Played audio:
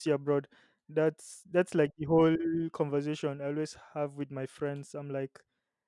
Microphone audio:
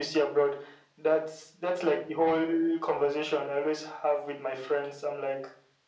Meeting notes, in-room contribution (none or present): none